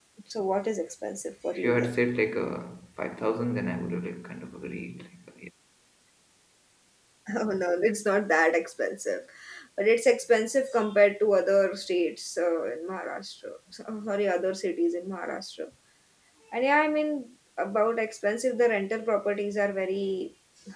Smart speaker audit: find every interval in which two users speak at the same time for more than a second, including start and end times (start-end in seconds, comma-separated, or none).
none